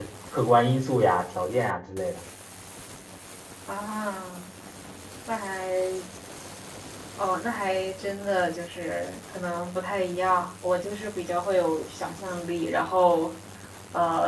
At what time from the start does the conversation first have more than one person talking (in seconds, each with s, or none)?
none